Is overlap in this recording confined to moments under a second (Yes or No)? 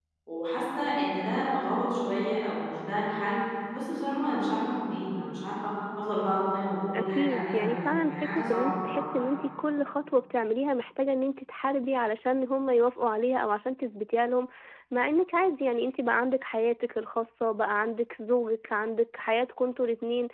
No